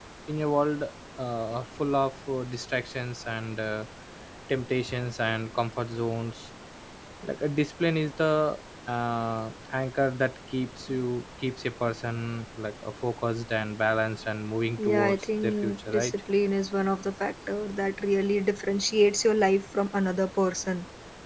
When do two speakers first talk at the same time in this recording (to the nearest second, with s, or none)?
15 s